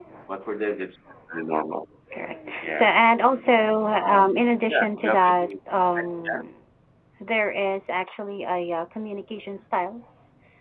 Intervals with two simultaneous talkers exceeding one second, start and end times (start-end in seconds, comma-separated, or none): 4.1-5.5